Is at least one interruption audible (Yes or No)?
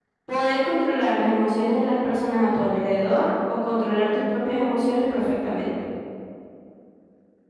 No